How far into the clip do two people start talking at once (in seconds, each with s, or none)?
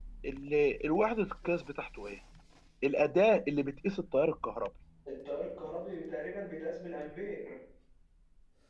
none